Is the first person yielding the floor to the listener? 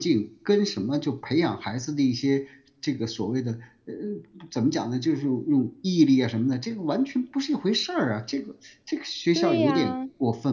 Yes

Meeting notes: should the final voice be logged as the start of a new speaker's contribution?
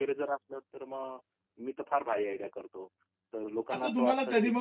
Yes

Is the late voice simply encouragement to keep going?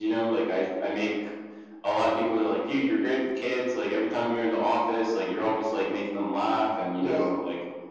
Yes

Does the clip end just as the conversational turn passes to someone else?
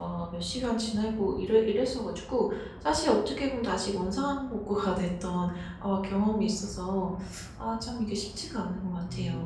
Yes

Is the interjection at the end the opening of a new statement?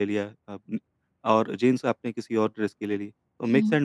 No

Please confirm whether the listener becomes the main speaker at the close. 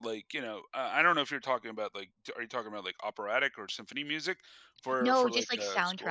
Yes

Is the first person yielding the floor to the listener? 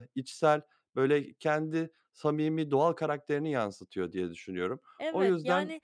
Yes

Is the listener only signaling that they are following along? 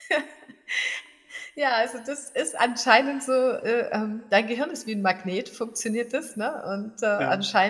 Yes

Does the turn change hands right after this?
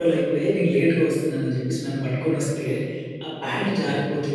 No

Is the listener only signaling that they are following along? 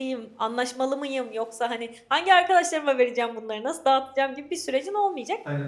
Yes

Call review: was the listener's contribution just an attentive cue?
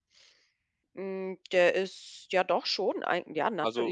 No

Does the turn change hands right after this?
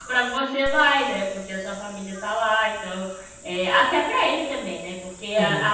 No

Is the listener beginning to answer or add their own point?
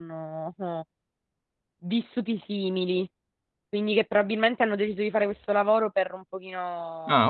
No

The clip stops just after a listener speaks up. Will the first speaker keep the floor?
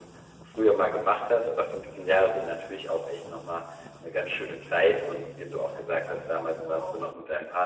Yes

